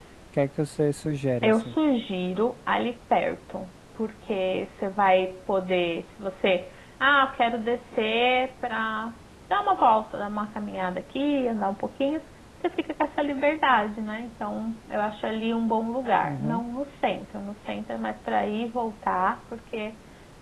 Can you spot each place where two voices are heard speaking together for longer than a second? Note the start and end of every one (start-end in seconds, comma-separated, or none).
none